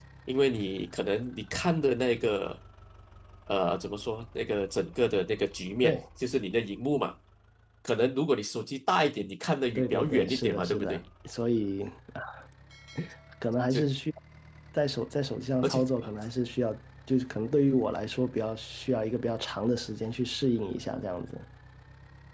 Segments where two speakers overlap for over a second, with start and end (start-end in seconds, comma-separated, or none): 9.8-11.0